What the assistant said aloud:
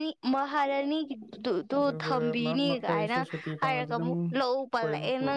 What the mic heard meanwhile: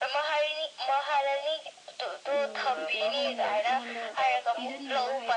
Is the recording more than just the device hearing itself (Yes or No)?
Yes